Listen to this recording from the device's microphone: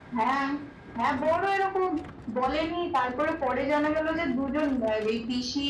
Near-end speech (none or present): none